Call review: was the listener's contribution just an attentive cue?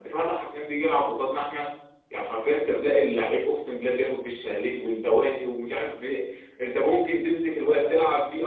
Yes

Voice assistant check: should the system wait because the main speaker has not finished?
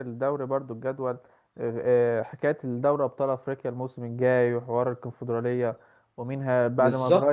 Yes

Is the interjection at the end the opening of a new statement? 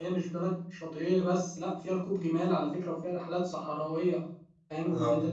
Yes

